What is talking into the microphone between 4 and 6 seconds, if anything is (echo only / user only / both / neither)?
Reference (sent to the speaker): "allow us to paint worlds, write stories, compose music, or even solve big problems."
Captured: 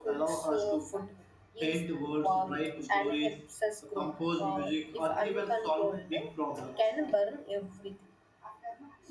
both